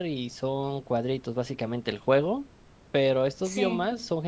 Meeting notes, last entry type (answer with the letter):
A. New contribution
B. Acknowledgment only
B